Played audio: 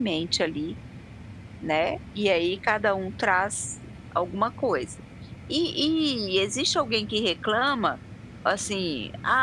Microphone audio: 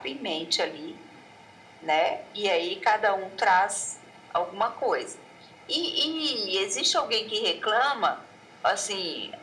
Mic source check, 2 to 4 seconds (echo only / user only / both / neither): echo only